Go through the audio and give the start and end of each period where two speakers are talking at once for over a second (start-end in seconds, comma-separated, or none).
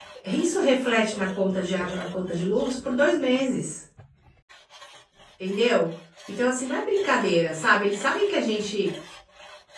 1.7-3.4